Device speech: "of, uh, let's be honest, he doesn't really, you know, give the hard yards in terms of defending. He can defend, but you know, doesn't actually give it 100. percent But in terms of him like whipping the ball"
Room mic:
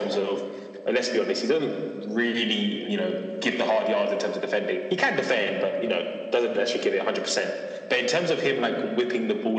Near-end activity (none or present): none